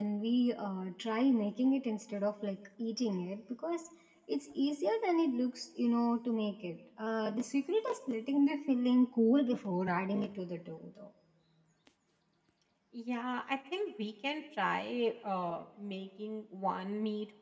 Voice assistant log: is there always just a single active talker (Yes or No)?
Yes